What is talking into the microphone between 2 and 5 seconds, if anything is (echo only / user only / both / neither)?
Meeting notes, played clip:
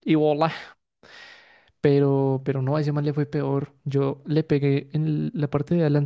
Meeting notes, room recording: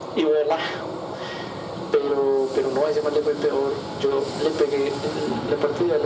echo only